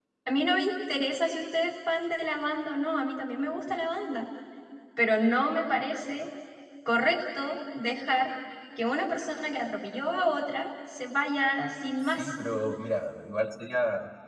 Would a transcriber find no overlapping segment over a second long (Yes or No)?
Yes